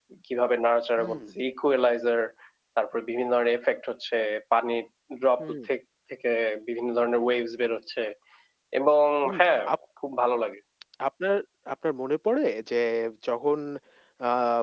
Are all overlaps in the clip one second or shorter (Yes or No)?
Yes